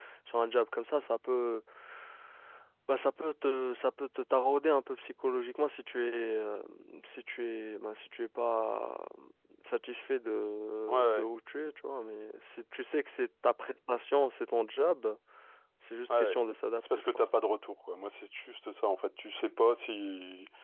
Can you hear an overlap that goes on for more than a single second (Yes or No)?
No